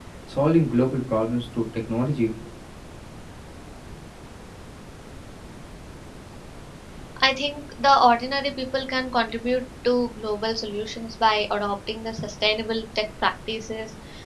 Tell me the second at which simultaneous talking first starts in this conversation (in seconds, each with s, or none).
none